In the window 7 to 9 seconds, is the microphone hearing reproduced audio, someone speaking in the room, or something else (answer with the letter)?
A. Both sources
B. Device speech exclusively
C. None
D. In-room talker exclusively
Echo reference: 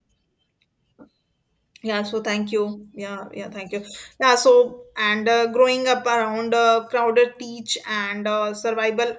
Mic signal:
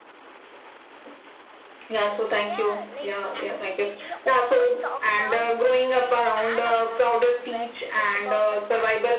A